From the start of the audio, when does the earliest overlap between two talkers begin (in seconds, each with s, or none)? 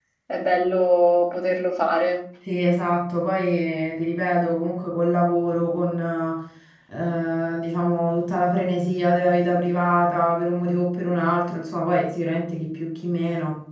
none